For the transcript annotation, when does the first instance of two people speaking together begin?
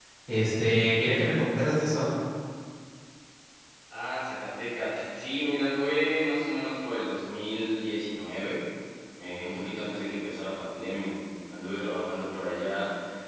none

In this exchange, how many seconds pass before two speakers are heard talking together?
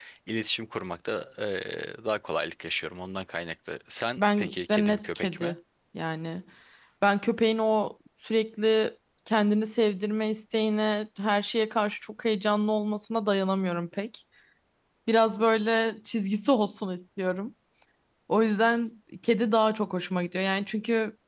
4.2 s

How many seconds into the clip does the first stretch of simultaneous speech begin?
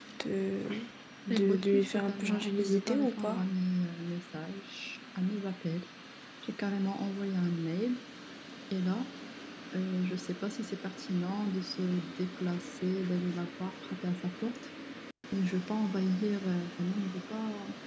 1.3 s

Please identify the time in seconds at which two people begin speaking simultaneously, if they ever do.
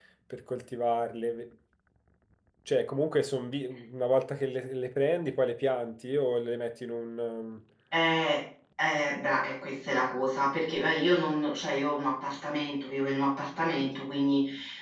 none

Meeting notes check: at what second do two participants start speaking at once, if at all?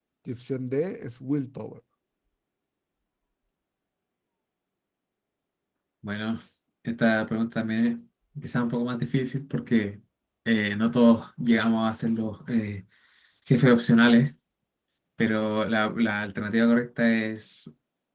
none

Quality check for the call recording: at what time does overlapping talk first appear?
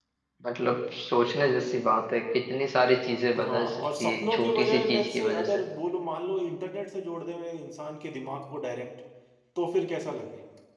3.4 s

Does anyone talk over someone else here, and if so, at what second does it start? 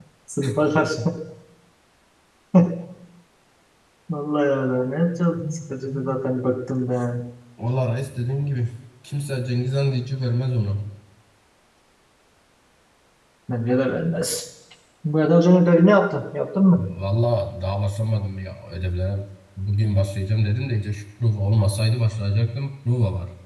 none

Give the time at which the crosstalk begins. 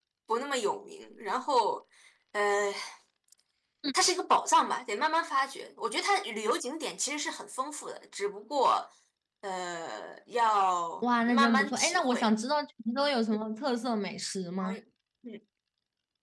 11.0 s

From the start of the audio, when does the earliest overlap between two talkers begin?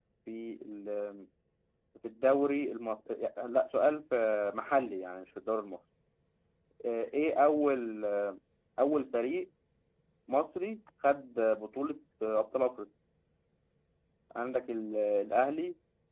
none

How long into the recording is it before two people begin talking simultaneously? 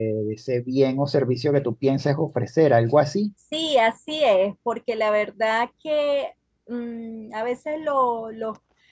none

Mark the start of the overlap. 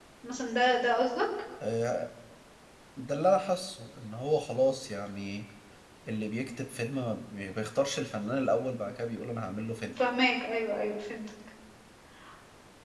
none

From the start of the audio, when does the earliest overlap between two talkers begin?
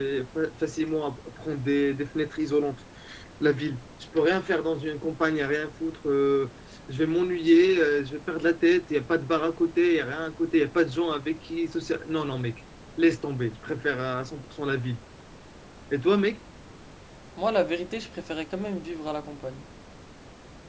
none

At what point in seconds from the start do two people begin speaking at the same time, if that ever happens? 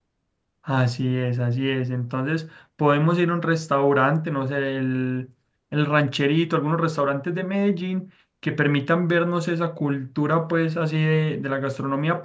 none

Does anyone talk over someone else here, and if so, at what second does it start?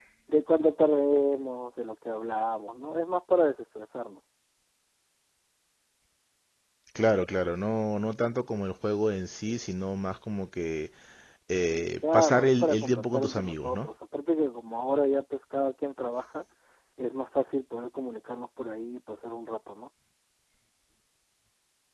12.1 s

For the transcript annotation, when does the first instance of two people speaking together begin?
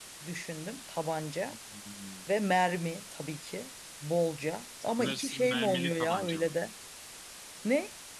5.0 s

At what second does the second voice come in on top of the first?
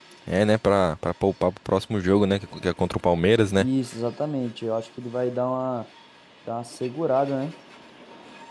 none

